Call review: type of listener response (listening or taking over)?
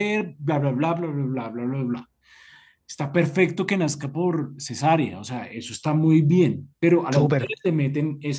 listening